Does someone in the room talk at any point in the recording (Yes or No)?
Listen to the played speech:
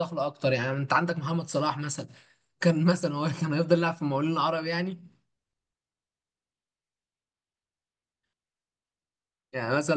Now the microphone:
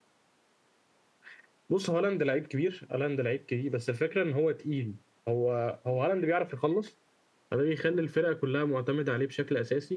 Yes